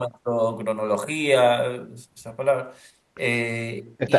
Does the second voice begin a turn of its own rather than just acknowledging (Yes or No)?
Yes